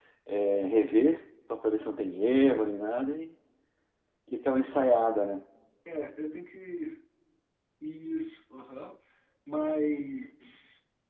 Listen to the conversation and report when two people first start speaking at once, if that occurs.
none

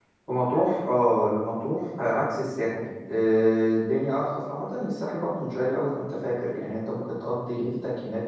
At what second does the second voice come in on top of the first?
none

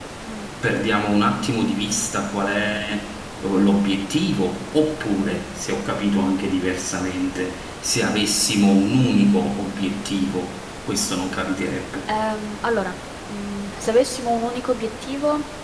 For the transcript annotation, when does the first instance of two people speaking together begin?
none

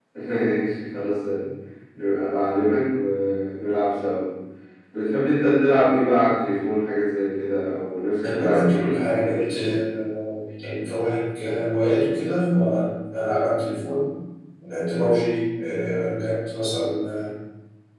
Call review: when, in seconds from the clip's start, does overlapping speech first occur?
8 s

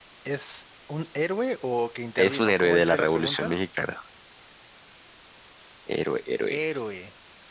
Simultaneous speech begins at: 2 s

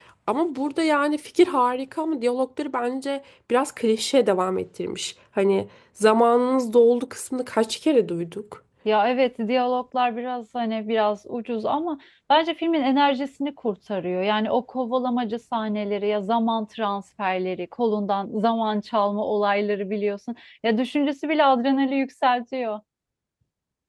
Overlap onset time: none

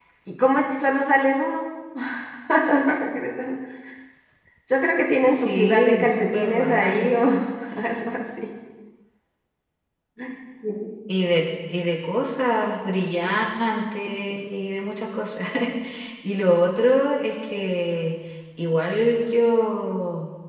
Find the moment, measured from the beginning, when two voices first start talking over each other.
5 s

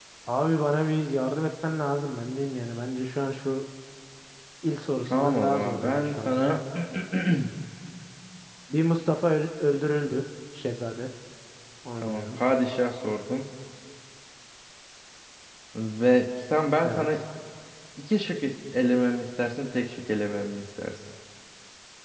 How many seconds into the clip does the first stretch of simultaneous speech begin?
5 s

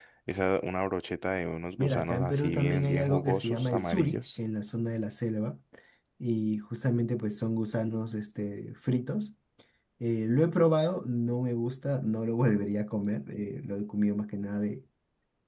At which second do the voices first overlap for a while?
2 s

